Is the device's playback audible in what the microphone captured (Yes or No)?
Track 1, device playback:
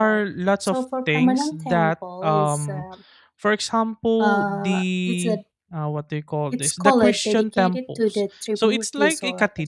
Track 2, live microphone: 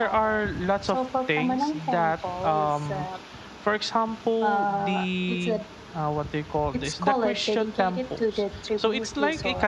Yes